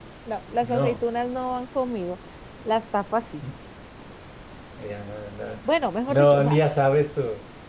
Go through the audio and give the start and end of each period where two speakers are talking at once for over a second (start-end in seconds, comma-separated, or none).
none